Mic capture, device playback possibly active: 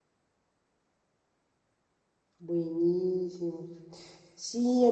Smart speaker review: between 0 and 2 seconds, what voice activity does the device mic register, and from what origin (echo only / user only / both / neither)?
neither